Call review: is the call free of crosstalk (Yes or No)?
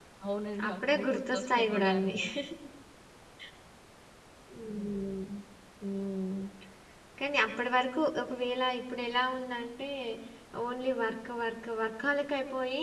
No